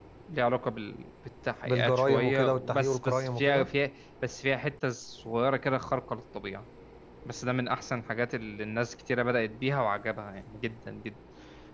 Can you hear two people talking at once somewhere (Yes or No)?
Yes